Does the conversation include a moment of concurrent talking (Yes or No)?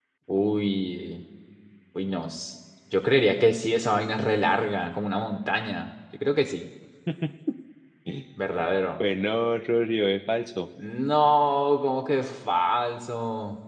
No